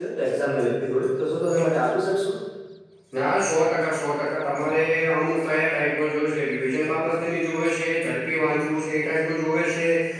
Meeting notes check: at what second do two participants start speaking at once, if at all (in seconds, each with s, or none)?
none